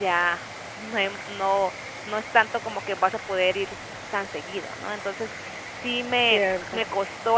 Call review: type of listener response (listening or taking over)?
listening